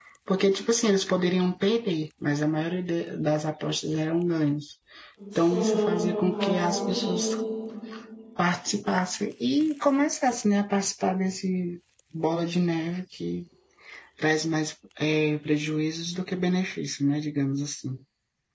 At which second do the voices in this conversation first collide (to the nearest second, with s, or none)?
5 s